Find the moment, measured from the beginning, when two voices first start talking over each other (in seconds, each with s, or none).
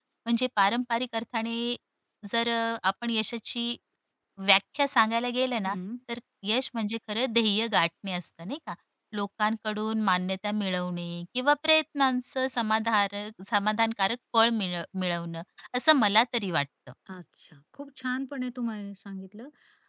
none